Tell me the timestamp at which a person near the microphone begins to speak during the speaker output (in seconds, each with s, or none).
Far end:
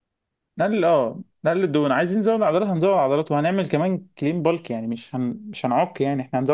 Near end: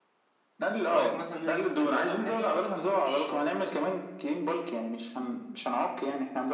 0.8 s